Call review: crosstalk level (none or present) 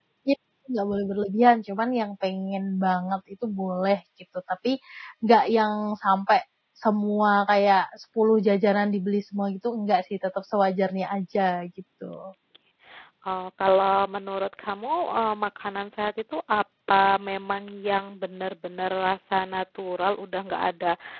none